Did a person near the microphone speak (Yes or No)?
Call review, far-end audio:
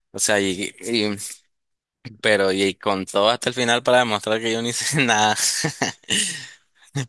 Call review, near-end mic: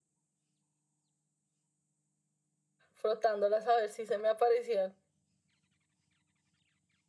Yes